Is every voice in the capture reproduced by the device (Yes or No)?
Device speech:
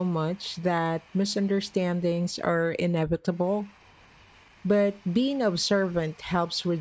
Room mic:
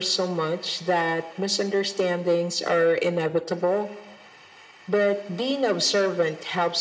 Yes